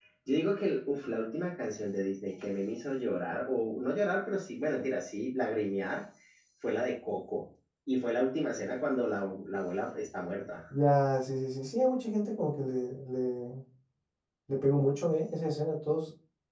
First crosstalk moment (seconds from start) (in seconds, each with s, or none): none